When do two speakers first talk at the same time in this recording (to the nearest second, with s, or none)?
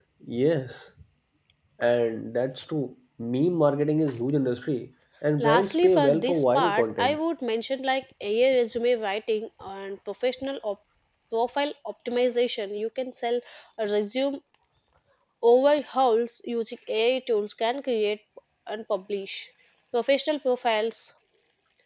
5 s